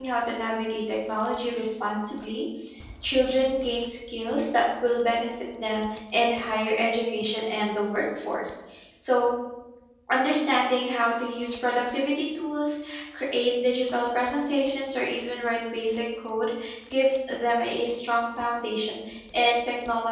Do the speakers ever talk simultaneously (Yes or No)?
No